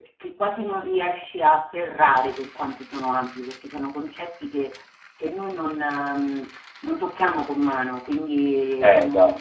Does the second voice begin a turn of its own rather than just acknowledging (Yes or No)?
No